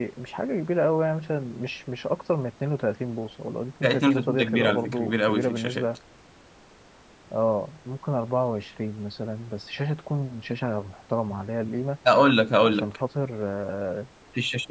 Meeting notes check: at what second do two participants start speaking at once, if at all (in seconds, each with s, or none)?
3.8 s